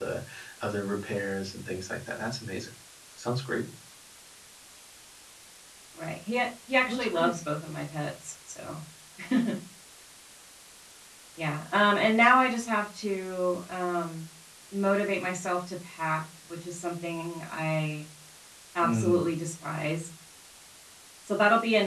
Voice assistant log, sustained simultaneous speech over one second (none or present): none